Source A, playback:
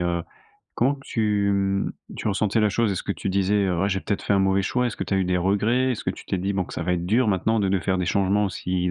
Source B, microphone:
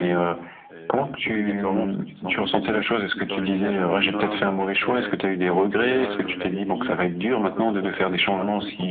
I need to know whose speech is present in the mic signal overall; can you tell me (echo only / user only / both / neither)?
both